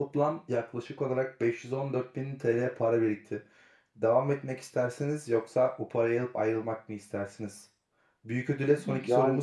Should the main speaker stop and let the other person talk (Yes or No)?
No